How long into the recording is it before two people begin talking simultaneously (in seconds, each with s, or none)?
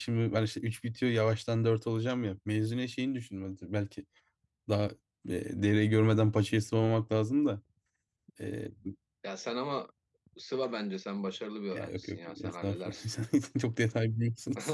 11.7 s